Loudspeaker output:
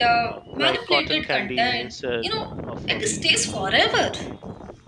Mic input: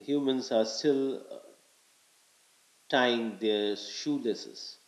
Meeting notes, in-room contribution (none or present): present